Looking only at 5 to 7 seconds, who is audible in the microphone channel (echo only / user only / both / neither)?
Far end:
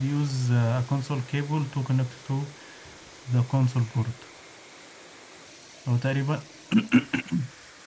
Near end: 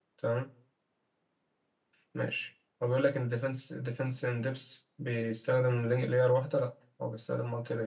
user only